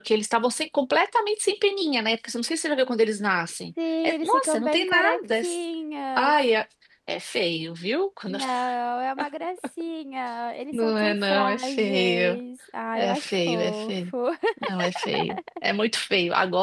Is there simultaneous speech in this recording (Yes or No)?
Yes